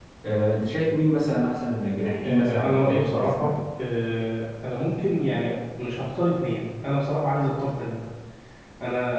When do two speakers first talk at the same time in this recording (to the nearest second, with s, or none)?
2 s